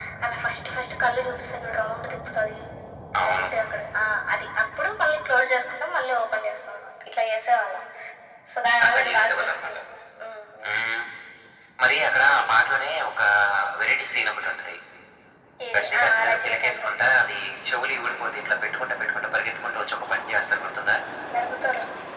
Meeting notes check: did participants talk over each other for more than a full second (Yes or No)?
Yes